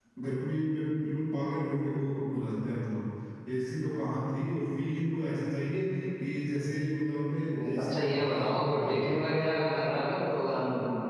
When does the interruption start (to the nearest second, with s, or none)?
7 s